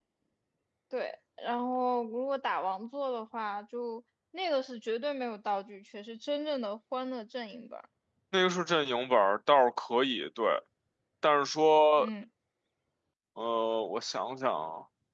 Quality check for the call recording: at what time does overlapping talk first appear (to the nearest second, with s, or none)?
none